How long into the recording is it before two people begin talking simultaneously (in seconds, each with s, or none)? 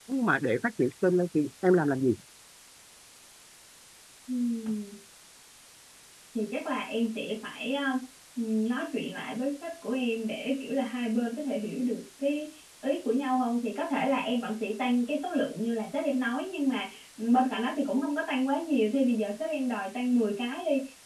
none